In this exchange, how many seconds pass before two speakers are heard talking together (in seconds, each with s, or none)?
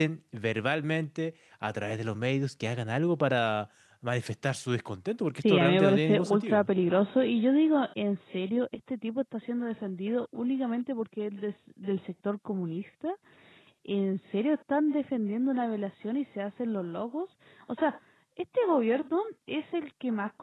5.4 s